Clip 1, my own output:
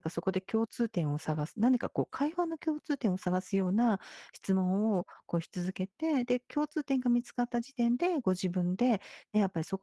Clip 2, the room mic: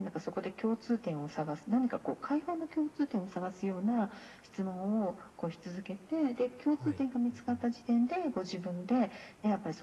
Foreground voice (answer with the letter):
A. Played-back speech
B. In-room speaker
A